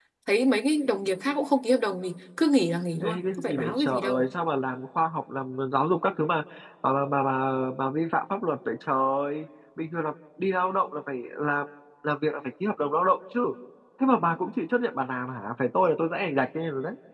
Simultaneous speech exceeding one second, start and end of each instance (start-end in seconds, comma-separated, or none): 3.0-4.3